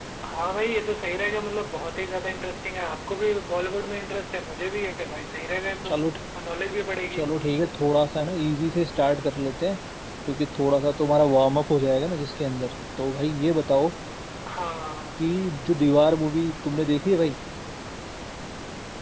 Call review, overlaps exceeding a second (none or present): none